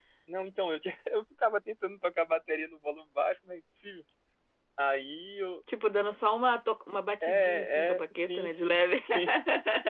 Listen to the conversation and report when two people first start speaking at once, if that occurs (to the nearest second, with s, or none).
7 s